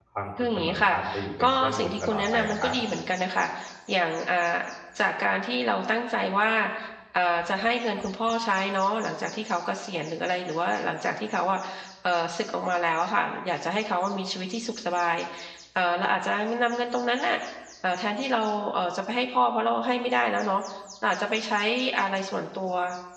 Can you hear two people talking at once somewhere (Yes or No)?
Yes